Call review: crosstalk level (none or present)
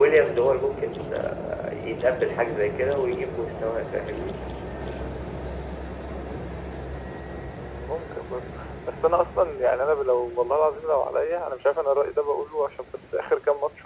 none